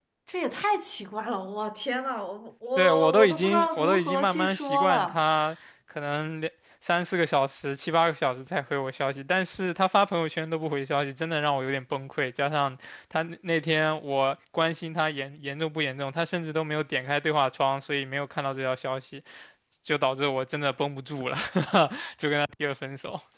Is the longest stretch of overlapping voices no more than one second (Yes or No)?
No